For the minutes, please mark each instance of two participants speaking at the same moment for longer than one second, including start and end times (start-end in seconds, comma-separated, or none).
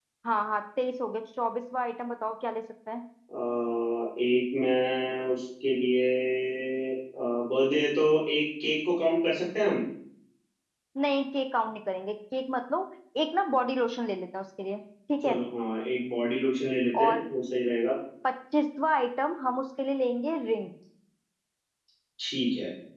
none